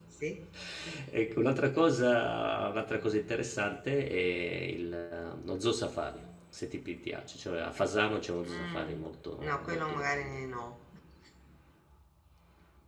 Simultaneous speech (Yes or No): Yes